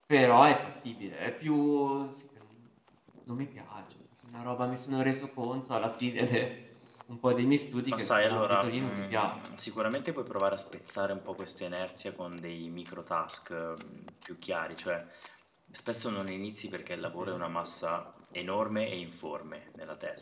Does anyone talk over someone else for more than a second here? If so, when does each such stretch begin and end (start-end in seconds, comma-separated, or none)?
7.9-9.3